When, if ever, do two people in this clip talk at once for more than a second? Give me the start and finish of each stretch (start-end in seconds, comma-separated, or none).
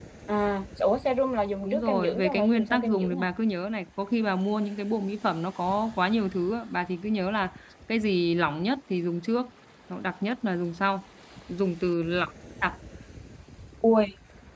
1.6-3.2